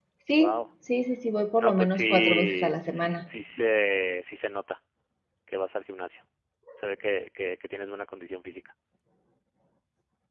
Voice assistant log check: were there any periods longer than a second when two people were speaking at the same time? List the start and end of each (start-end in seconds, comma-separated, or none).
1.6-3.2